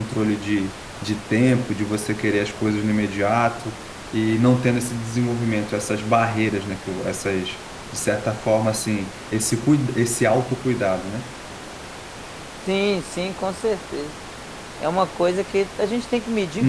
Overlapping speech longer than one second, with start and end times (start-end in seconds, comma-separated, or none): none